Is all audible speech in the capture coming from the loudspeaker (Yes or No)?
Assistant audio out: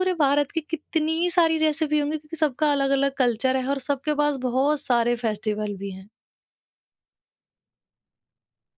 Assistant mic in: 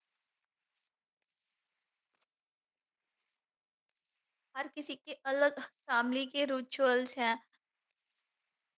No